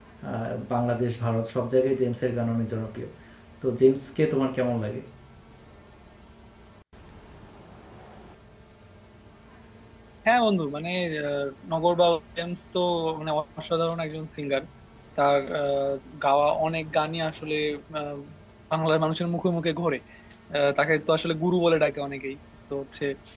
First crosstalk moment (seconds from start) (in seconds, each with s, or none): none